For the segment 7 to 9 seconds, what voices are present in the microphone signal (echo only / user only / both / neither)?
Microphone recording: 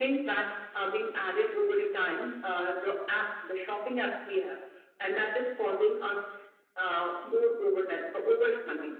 echo only